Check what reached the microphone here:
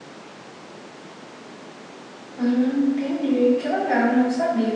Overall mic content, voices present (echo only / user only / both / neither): user only